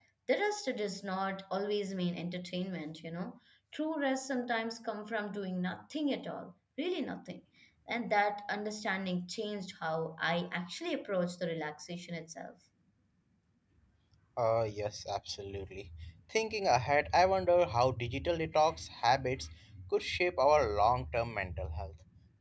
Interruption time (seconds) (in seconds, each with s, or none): none